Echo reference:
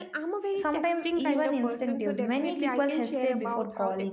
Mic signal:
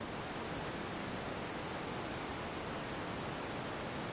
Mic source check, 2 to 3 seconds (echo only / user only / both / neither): neither